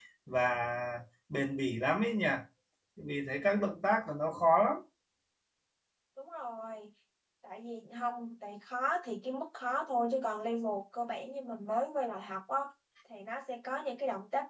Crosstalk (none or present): none